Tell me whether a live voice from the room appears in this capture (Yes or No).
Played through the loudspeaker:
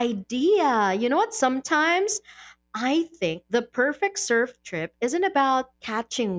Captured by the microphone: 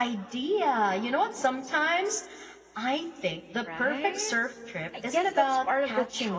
Yes